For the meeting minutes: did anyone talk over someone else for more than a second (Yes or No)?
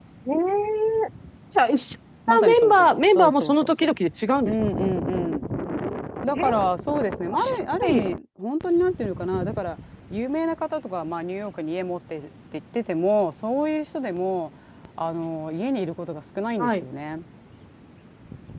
Yes